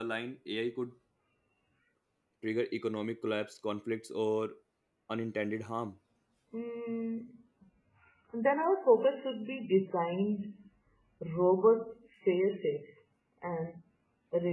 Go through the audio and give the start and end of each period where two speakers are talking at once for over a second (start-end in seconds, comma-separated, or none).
none